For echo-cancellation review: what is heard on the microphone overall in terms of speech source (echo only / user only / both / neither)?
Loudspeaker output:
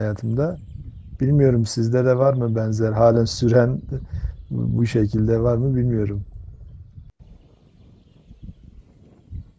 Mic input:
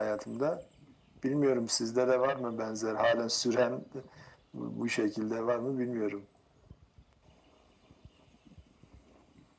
echo only